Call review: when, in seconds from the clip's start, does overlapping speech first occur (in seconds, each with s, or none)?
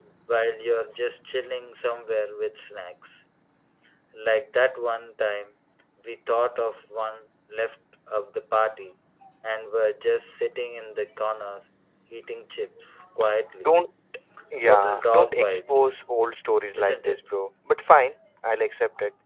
14.6 s